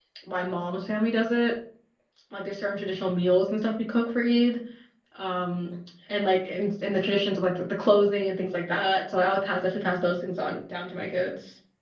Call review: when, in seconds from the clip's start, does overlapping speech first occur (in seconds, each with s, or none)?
none